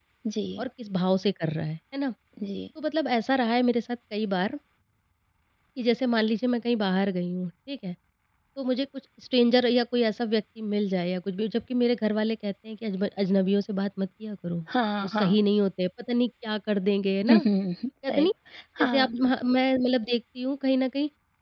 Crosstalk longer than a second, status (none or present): none